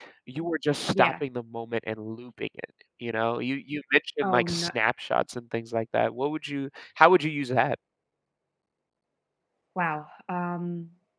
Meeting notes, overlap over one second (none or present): none